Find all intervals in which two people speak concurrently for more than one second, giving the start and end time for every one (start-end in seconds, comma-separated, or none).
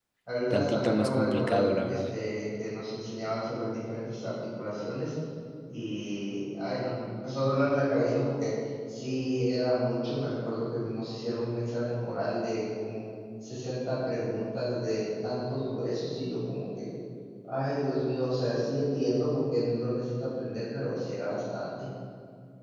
0.5-2.2